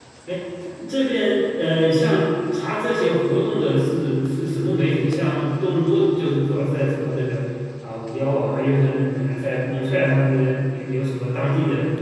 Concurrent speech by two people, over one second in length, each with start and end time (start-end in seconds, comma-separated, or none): none